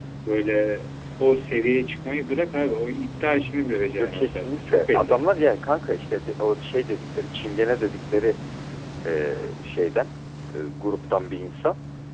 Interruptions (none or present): present